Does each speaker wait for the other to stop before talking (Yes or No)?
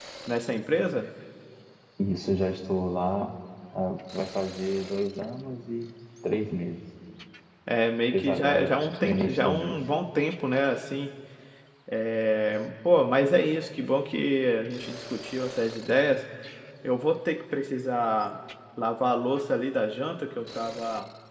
No